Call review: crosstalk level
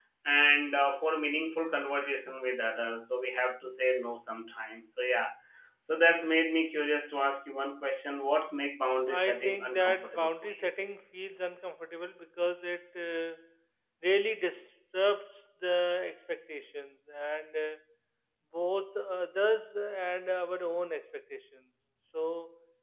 present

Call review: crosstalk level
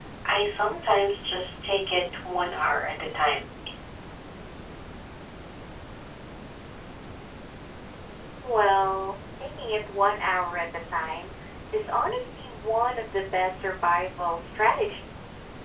none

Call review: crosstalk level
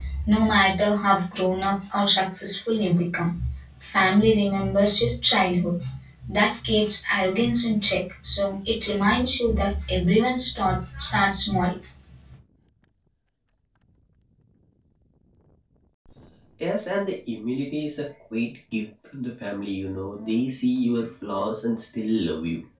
none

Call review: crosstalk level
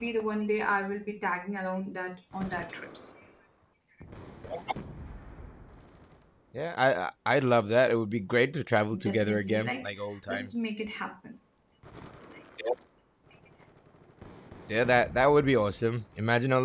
present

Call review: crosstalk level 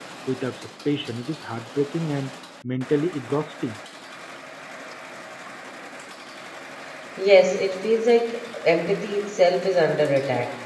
none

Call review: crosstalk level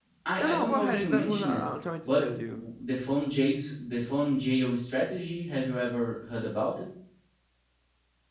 present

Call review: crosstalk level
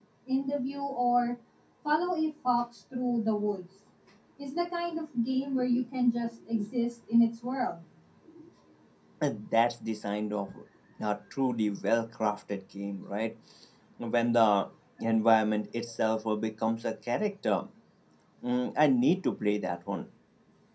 none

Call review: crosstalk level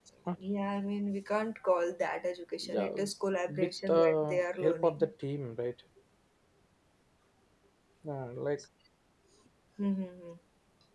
present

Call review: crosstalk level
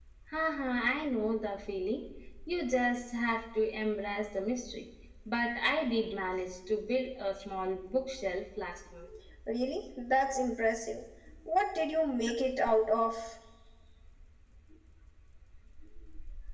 none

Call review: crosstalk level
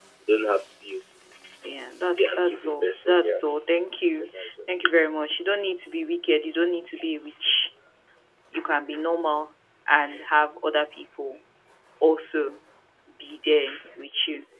present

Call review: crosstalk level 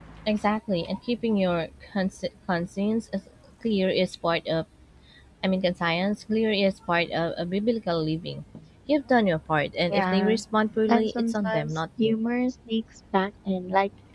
present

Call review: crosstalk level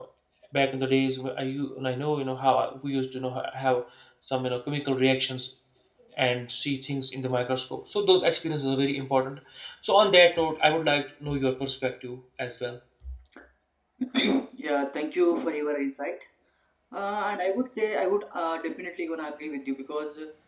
none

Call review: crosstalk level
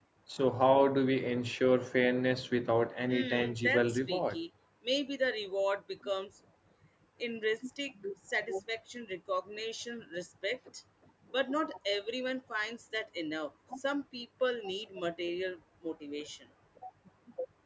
present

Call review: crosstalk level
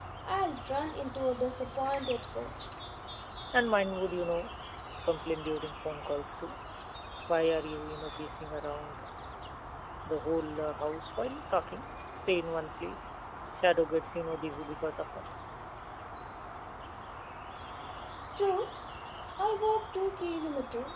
none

